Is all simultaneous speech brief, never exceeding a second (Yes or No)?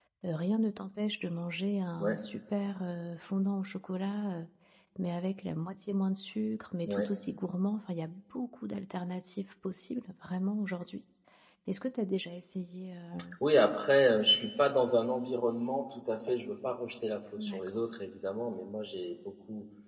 Yes